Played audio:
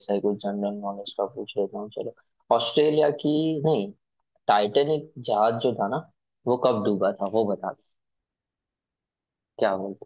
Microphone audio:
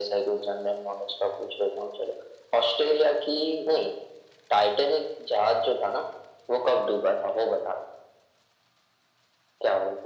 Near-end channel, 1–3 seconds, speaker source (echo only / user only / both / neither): echo only